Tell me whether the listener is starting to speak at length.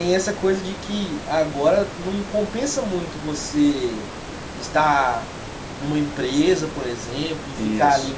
No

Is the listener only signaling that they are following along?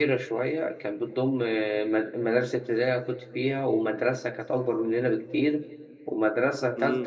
Yes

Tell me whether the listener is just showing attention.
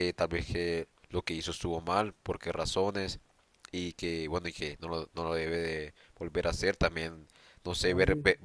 Yes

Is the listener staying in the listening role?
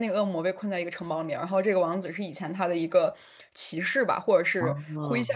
Yes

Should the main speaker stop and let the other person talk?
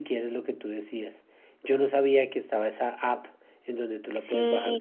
Yes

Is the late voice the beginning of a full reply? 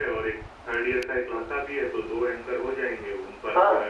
Yes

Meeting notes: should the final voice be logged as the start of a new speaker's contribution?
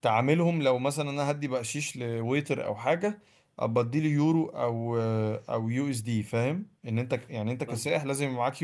No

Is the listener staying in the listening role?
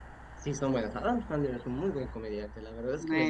No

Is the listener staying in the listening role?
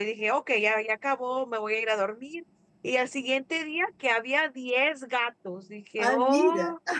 Yes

